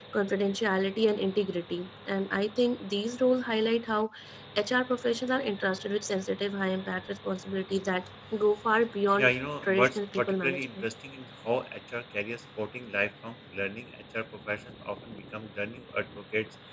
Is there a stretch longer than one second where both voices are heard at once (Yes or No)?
Yes